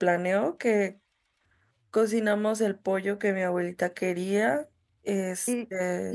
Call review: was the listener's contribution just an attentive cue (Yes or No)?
No